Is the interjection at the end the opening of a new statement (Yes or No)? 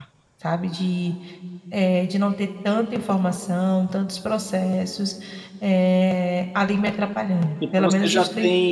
Yes